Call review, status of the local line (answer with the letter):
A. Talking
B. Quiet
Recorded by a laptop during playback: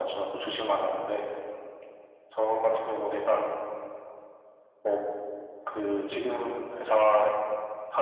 B